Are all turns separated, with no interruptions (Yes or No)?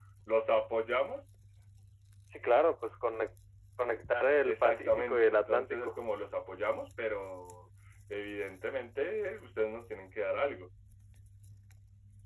No